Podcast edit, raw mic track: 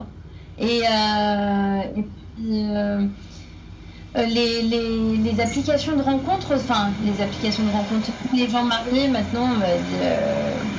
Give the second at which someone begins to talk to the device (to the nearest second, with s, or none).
none